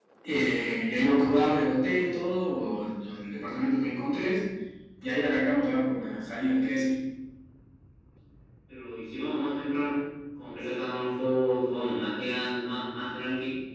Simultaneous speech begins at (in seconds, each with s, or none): none